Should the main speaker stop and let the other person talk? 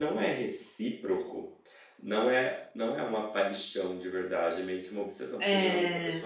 No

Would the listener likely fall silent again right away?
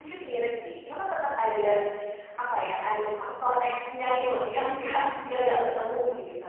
Yes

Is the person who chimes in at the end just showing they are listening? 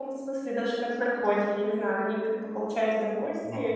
Yes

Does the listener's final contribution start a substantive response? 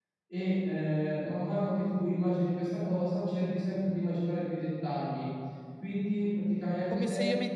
Yes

